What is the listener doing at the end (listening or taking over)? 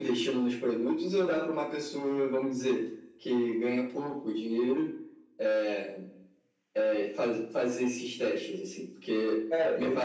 listening